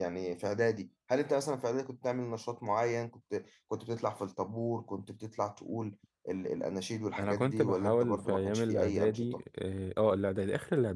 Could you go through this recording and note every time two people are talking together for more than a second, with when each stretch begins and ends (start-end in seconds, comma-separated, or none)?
7.2-9.3